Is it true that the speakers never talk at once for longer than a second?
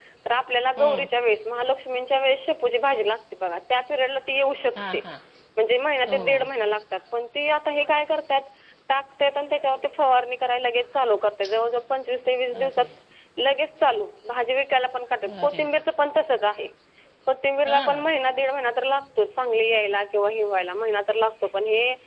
Yes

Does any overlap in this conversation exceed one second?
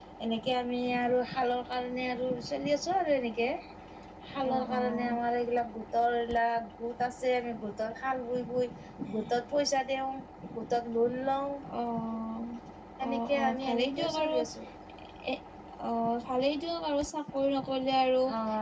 Yes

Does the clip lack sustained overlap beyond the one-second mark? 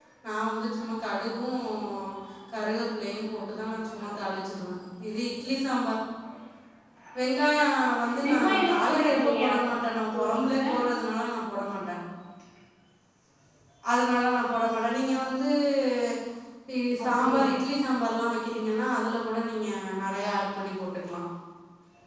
No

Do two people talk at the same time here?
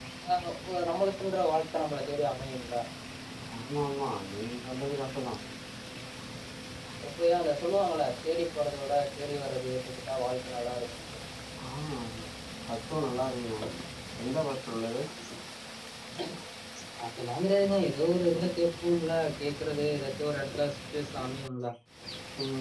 No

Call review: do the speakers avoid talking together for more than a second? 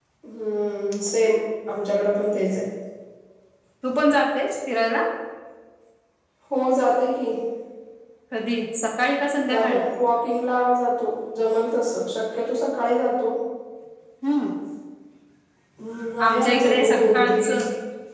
No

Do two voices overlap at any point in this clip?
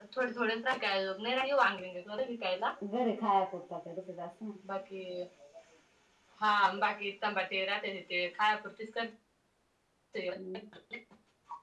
No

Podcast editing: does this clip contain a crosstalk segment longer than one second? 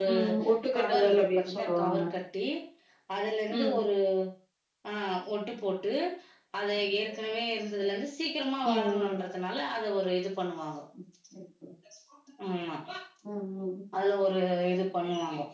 Yes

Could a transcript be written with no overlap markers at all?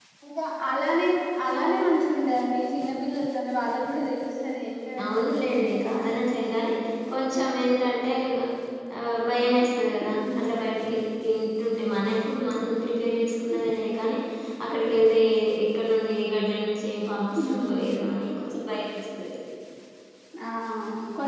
No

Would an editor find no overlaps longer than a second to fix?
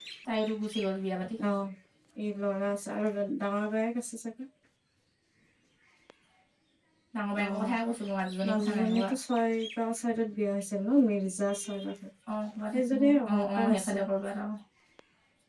No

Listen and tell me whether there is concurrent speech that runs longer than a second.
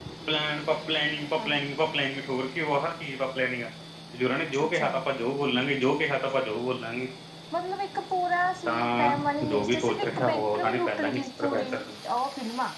Yes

